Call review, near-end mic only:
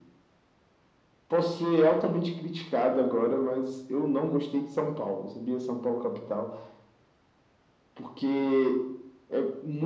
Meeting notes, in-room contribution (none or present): none